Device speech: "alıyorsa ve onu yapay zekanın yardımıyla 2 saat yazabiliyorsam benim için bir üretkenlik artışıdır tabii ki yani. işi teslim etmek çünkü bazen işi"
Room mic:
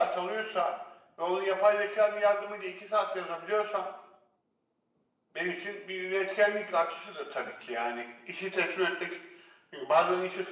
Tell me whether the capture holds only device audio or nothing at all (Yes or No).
Yes